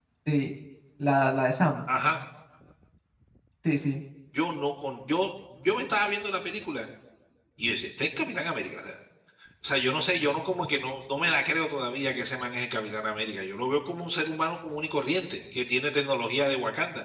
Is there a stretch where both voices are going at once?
No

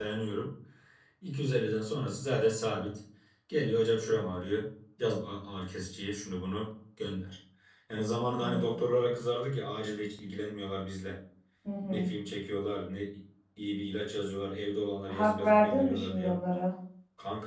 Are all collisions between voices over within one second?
No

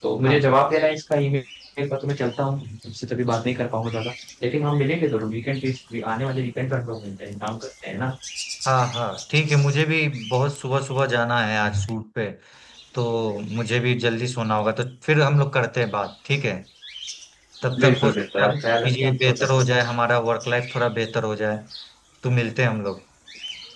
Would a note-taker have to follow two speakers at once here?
Yes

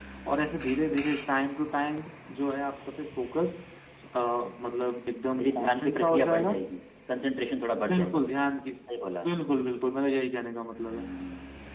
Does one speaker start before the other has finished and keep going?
Yes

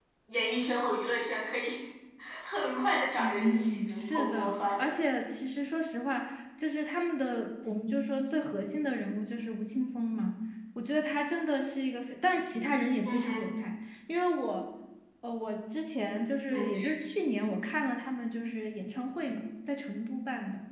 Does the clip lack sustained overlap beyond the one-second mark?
No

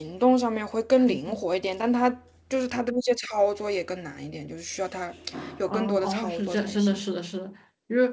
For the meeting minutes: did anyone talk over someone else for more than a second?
Yes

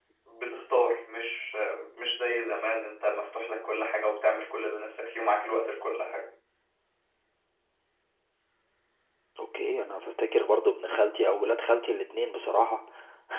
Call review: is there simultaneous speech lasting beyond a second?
No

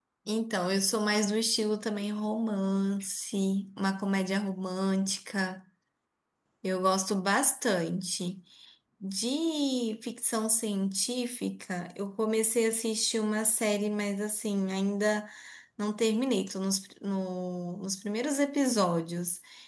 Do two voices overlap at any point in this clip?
No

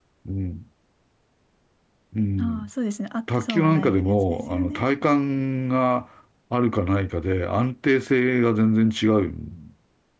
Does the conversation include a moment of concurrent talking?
Yes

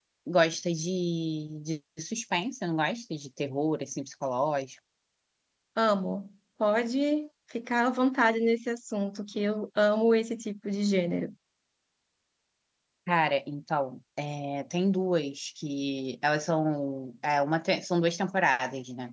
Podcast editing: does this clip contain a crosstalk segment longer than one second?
No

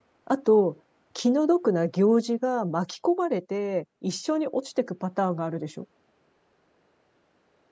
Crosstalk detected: No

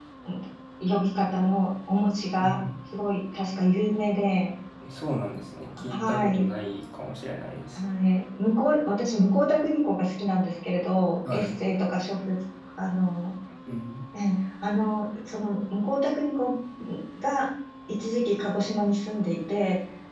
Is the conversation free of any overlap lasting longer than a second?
Yes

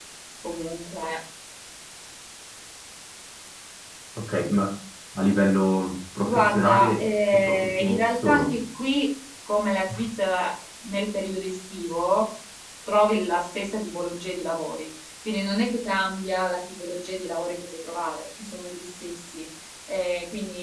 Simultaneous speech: Yes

